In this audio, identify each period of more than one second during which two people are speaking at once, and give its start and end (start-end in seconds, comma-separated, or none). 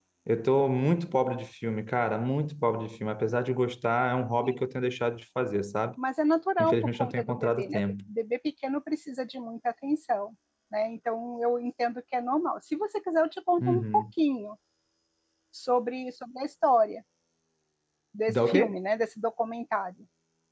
6.6-7.8